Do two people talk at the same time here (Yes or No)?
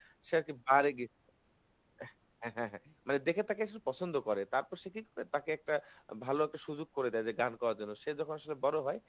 No